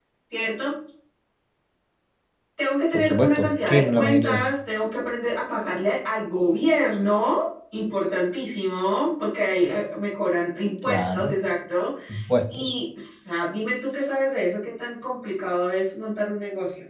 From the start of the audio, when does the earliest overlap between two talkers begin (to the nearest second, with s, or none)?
3 s